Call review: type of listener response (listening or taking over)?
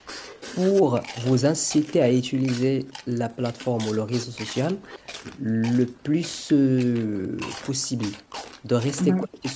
listening